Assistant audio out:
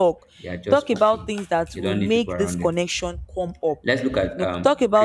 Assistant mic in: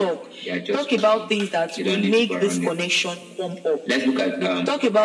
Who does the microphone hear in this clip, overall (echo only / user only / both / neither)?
echo only